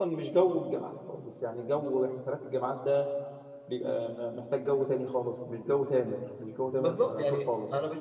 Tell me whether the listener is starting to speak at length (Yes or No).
Yes